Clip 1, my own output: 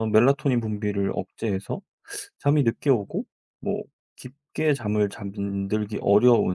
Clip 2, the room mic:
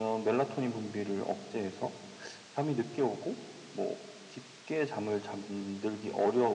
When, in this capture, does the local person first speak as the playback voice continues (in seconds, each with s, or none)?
none